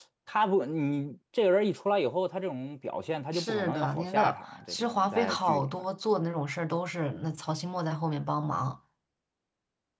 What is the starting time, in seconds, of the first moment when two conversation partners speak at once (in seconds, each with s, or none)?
3.3 s